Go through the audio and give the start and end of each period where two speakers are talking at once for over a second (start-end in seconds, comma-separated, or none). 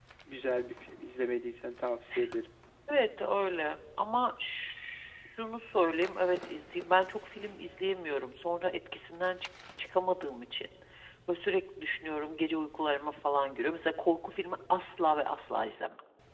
none